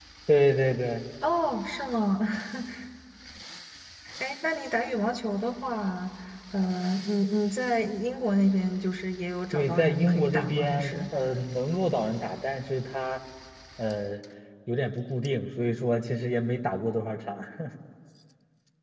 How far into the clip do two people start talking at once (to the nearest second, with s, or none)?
10 s